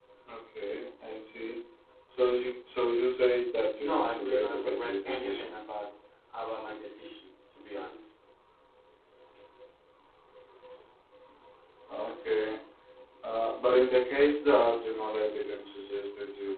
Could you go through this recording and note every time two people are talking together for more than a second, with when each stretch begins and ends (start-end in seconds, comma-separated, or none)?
3.8-5.6